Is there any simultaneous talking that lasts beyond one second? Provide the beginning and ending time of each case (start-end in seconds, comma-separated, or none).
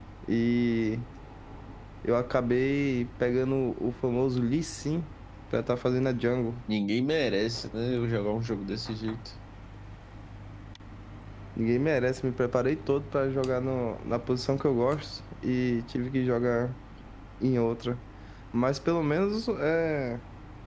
none